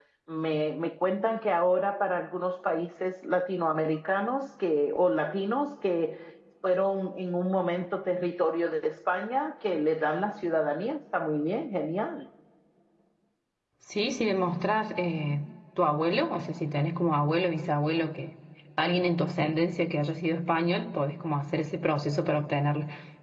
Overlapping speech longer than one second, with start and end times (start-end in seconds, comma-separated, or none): none